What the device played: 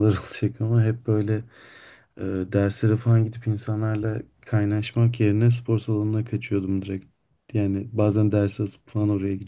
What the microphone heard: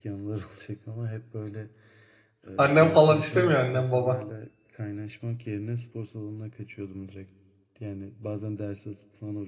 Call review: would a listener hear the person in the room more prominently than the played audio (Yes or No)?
Yes